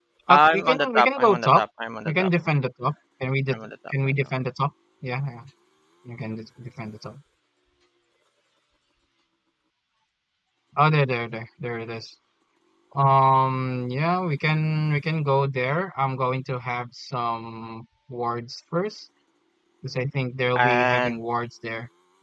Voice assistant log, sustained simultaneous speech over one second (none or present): present